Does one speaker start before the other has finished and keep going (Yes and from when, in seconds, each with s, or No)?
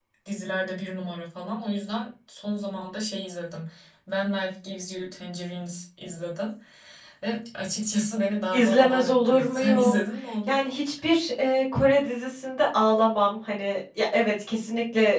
Yes, from 8.5 s